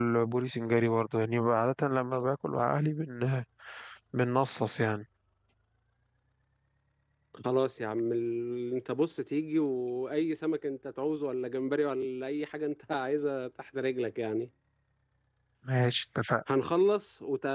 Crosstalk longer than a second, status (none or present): none